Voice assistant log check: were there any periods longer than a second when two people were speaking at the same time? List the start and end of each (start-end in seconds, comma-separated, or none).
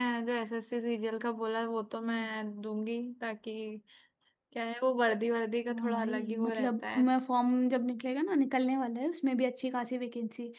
5.7-7.0